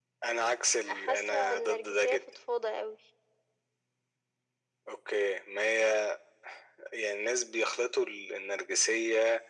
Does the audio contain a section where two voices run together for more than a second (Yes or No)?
Yes